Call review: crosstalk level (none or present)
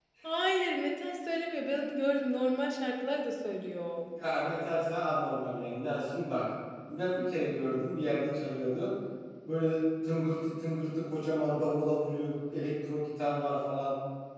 none